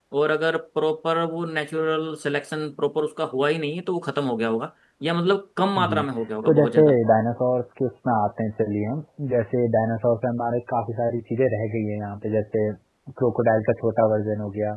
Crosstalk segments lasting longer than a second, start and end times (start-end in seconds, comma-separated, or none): none